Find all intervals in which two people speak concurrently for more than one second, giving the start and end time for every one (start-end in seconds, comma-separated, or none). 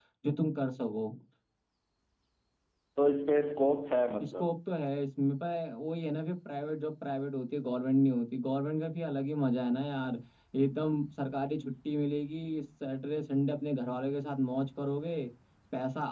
none